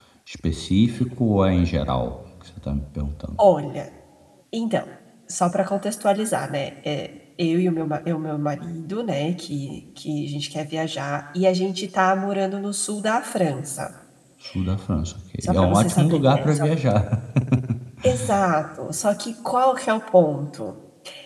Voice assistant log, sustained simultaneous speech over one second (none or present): present